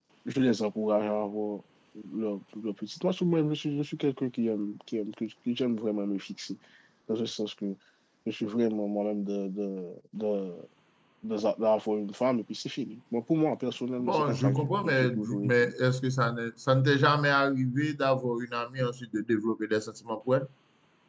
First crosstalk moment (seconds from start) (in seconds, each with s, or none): 14.0 s